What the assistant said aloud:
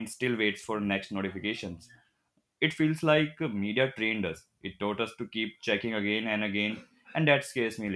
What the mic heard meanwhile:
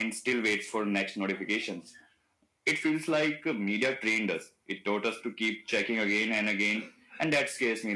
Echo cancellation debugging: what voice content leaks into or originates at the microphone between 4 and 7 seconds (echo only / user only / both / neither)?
echo only